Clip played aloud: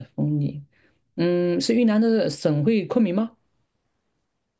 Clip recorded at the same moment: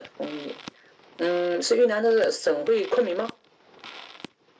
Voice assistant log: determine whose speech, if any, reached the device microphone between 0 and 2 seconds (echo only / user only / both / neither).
echo only